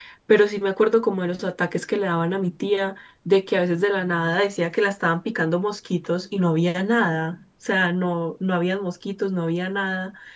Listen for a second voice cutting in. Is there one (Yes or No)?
No